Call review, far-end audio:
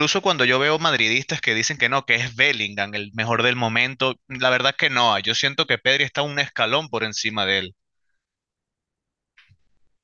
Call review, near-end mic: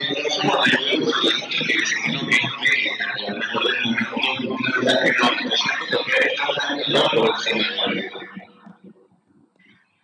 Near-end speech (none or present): none